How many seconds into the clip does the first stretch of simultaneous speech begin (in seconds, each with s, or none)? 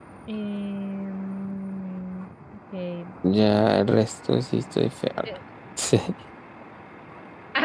none